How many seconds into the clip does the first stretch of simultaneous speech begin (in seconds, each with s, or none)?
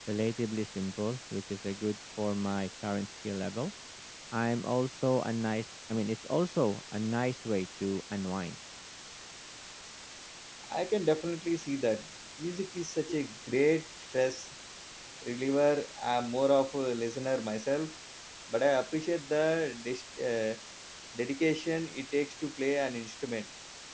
none